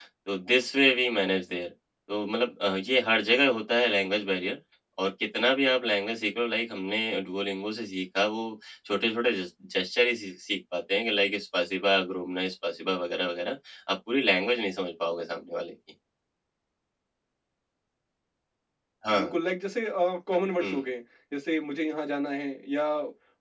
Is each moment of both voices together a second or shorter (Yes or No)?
Yes